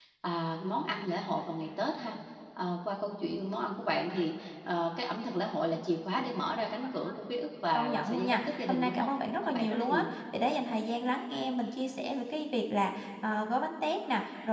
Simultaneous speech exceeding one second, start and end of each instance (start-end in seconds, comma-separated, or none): 7.7-10.0